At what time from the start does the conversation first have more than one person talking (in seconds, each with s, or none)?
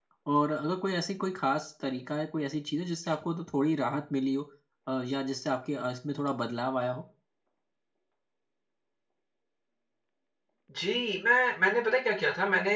none